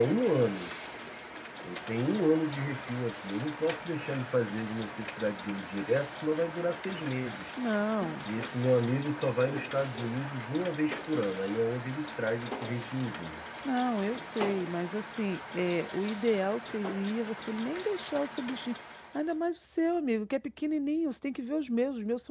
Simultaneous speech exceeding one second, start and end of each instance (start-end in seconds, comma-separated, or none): none